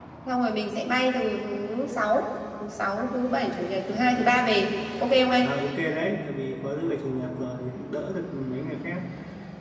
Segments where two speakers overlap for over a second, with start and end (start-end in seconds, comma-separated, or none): none